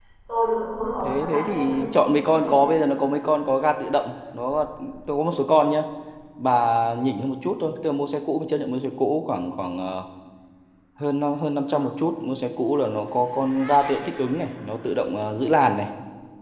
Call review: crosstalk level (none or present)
present